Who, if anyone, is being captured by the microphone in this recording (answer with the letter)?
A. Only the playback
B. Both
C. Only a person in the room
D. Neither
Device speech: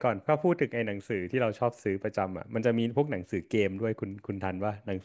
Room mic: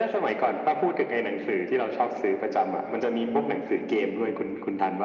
A